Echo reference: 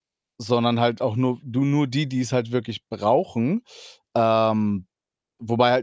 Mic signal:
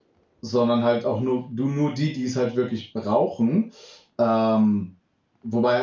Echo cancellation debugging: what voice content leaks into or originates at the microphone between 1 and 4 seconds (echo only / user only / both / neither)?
echo only